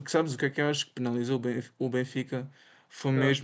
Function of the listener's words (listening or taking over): listening